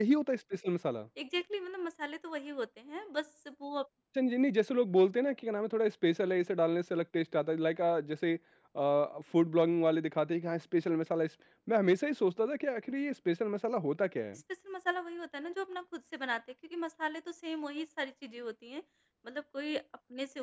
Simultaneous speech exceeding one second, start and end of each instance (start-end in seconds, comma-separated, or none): none